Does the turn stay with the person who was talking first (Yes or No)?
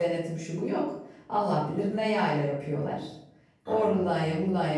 Yes